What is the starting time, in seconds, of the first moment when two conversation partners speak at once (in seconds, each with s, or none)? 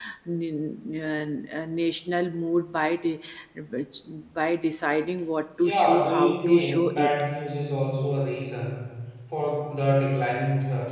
5.6 s